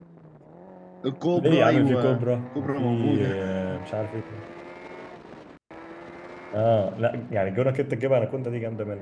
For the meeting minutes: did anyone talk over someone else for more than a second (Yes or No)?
Yes